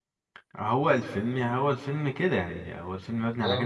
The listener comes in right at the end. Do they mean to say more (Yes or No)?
No